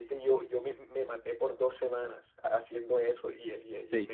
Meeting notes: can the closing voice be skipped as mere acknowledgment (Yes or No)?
Yes